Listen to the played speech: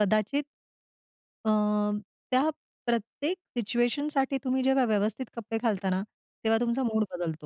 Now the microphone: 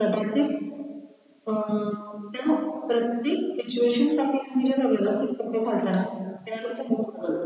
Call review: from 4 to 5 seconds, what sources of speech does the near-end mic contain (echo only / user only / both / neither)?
echo only